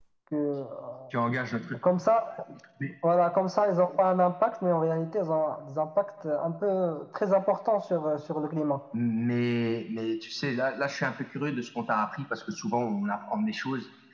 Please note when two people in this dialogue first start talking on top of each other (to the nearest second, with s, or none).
none